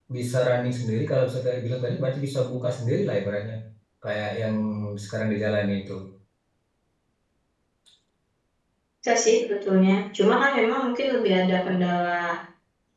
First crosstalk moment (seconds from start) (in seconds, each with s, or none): none